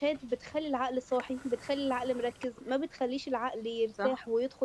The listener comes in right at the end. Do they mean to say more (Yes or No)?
No